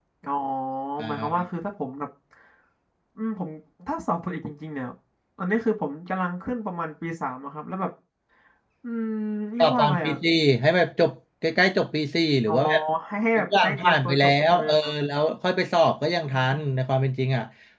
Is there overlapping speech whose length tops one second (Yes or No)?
Yes